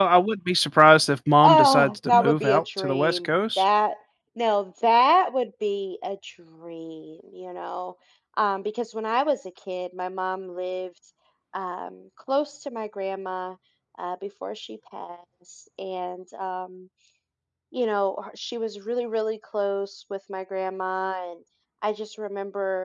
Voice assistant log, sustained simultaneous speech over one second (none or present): present